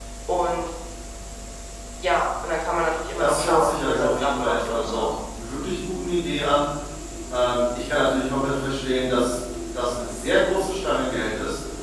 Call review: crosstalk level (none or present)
present